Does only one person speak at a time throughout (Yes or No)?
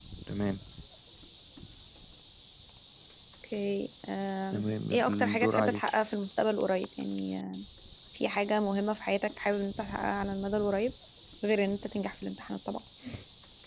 No